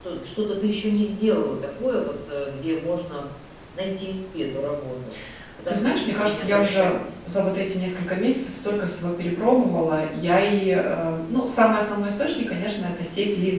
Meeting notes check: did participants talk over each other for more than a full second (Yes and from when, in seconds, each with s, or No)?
Yes, from 5.7 s